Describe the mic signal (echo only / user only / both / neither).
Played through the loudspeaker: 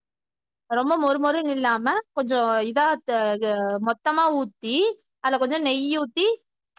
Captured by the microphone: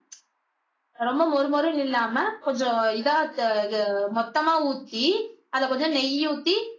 echo only